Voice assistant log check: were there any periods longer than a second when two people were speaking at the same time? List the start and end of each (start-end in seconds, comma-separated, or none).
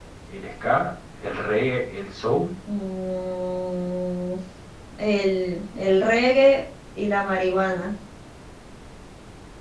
none